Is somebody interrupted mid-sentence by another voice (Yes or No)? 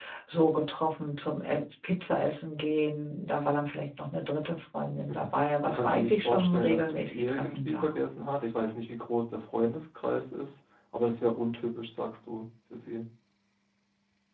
Yes